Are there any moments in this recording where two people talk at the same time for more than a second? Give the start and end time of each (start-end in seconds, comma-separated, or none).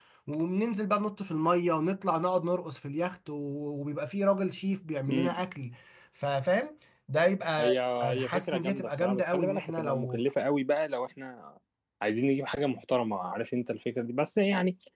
7.6-10.2